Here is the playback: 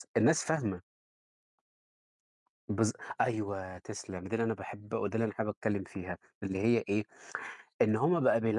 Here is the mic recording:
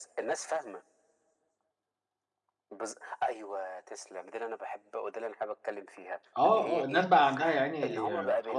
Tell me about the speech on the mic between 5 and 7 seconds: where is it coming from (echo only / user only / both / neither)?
both